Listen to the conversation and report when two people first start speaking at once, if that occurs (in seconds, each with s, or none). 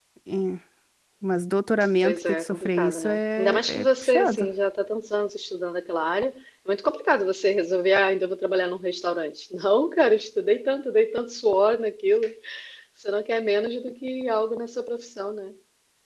2.0 s